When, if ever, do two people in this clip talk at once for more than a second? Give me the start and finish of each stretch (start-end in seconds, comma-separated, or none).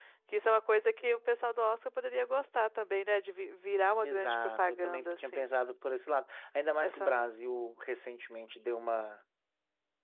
4.0-5.5